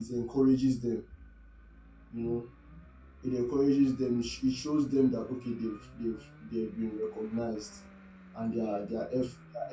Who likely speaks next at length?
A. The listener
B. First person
B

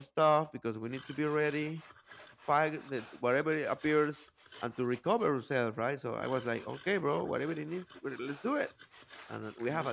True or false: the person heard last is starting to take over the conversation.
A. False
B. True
A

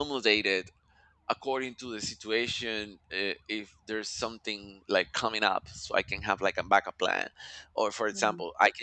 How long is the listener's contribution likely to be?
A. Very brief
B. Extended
A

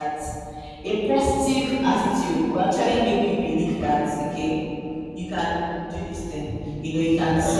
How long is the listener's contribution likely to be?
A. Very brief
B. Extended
A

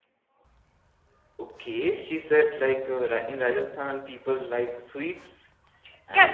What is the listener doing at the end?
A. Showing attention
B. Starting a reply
B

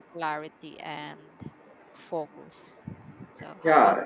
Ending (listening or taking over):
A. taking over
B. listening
A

